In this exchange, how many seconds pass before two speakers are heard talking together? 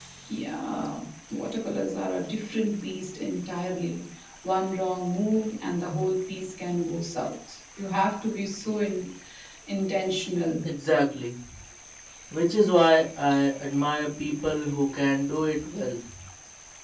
none

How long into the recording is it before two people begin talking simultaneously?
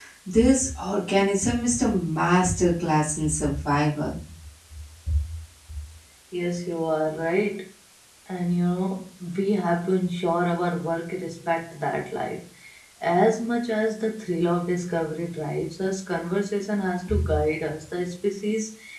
none

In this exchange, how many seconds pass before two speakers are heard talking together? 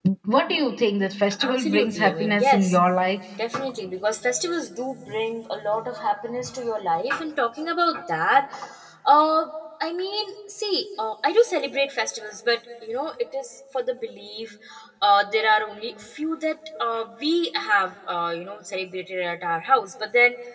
1.3 s

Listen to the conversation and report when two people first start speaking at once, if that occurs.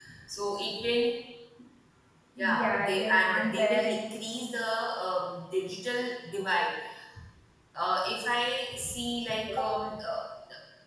2.4 s

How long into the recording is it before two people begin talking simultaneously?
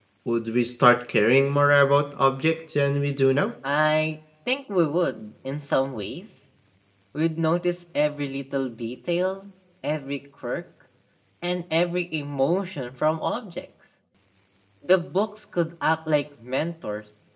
none

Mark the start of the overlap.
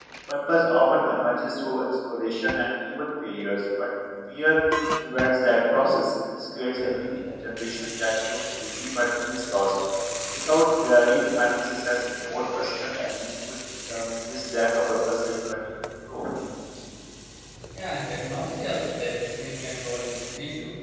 none

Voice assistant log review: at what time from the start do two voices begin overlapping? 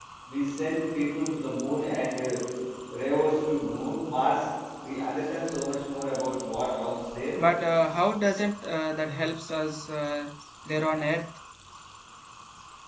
none

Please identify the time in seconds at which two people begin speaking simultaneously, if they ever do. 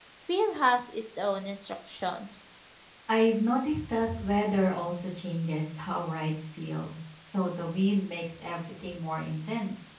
none

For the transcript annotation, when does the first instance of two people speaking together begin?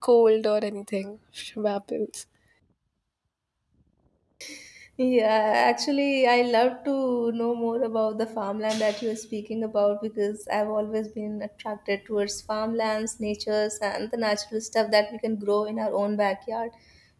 none

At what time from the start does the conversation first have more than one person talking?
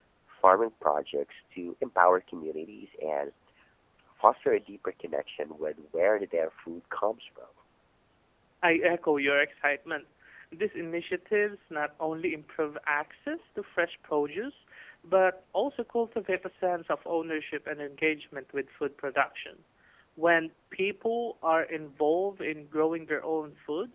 none

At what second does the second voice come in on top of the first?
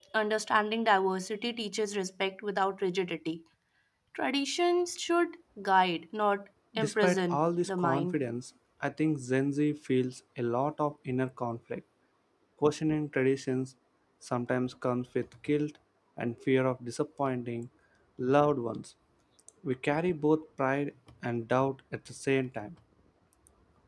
6.8 s

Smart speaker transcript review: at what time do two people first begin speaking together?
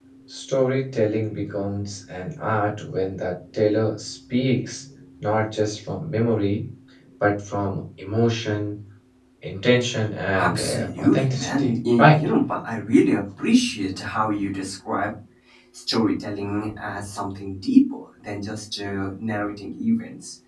10.3 s

